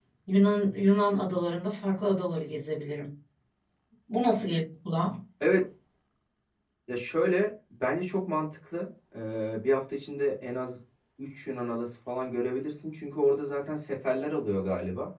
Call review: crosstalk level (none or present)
none